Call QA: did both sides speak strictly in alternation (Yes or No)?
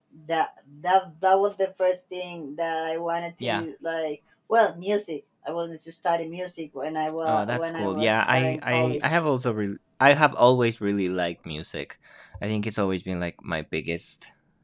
No